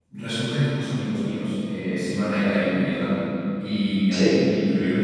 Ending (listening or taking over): listening